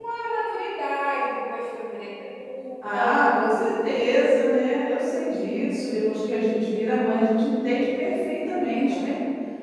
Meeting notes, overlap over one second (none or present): none